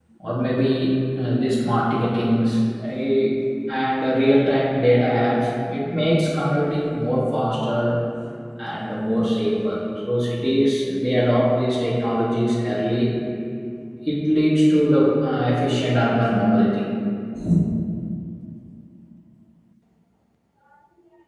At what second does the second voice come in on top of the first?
none

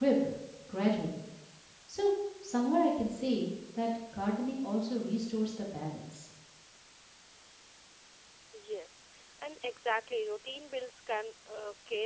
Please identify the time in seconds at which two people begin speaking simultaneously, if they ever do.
none

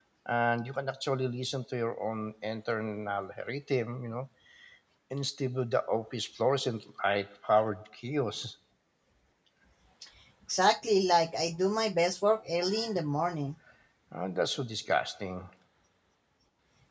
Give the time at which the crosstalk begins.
none

